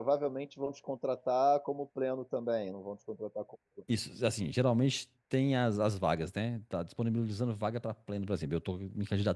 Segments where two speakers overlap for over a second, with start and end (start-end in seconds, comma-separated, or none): none